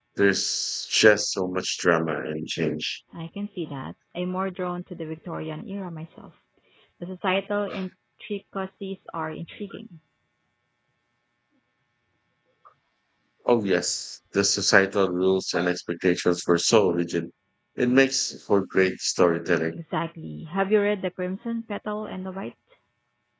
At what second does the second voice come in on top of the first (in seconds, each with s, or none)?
none